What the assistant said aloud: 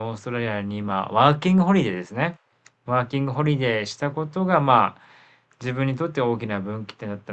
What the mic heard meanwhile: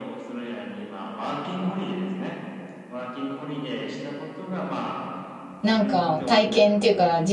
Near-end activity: present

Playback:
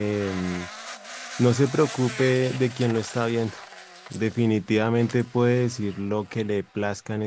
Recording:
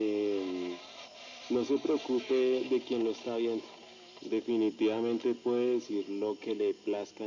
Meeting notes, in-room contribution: none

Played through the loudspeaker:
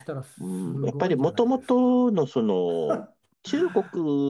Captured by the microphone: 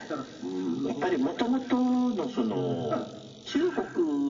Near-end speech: present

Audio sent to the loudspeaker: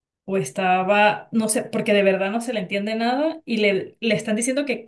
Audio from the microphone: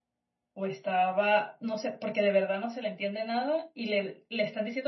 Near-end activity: none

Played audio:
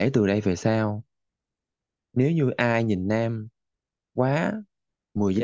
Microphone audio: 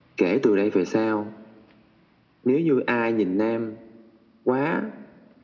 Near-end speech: none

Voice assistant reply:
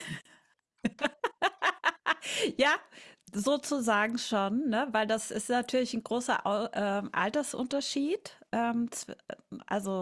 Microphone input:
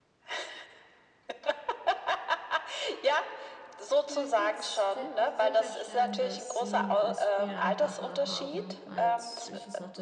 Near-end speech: present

